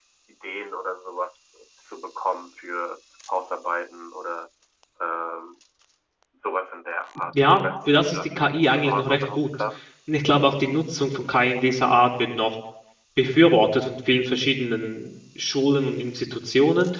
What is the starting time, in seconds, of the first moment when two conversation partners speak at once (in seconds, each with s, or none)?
7.3 s